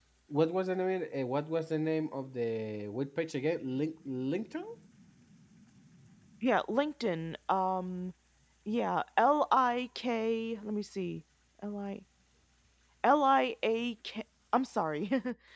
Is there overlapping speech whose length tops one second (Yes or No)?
No